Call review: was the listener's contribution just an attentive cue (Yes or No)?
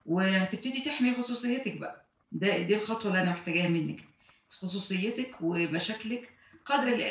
Yes